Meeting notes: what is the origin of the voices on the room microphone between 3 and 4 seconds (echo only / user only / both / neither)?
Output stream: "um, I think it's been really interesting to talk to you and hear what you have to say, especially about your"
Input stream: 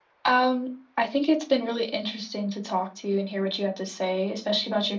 echo only